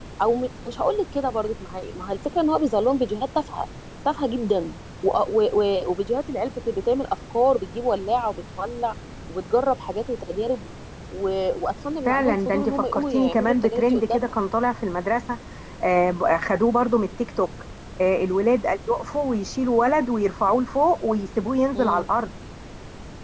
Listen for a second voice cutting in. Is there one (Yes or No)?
Yes